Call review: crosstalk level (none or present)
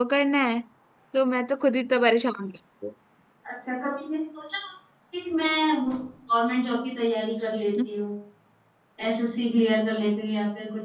none